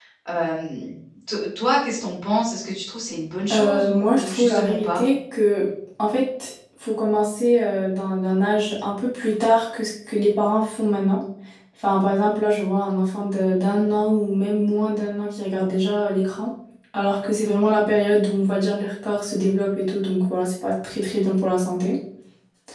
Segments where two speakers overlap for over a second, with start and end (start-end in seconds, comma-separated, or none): 3.5-5.0